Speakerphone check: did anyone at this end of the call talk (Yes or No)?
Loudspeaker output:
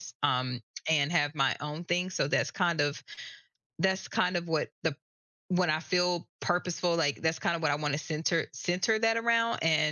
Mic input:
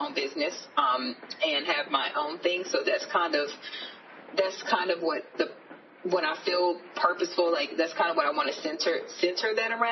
No